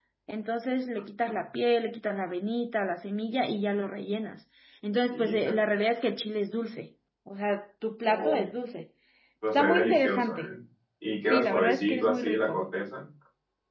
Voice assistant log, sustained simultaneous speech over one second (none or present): present